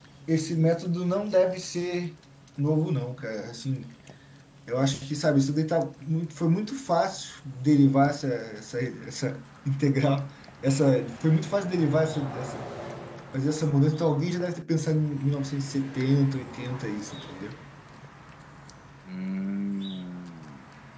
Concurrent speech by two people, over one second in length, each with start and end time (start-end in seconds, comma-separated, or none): none